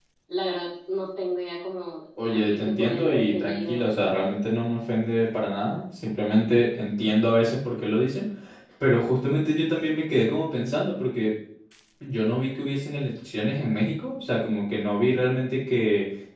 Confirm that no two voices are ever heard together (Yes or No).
No